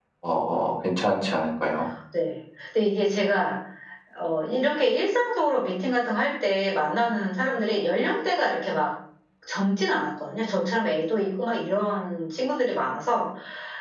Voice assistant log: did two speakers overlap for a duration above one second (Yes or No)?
No